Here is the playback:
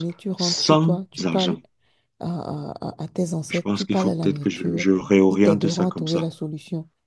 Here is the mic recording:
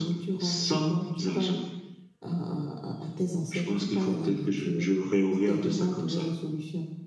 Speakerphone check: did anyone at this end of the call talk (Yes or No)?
No